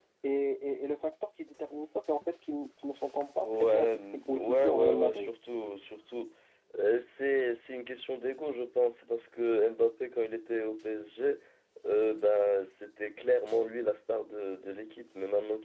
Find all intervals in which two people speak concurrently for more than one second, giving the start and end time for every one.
3.4-5.3

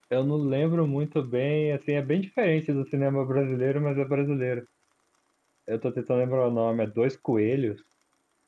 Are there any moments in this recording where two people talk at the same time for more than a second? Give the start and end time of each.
none

